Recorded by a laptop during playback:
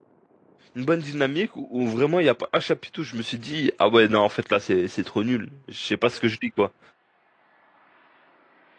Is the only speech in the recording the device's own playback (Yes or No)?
No